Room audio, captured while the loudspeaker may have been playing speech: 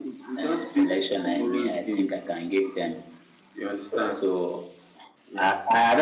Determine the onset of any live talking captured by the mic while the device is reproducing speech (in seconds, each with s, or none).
none